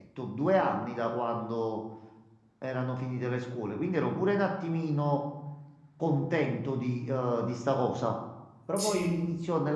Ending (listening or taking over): listening